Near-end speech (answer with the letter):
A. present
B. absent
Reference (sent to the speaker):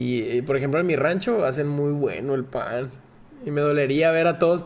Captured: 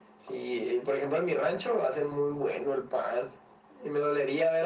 B